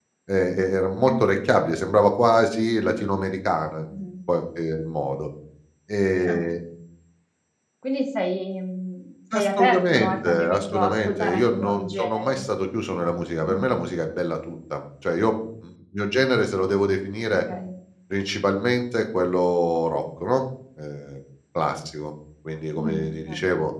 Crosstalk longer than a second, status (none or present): present